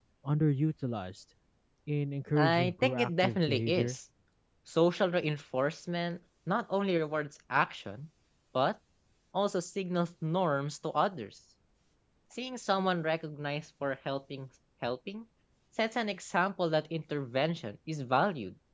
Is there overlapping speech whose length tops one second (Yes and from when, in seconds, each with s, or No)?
Yes, from 2.4 s